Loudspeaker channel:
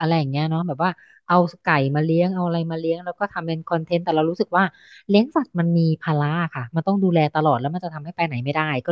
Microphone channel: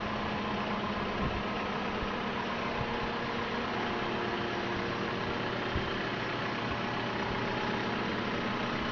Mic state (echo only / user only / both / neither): neither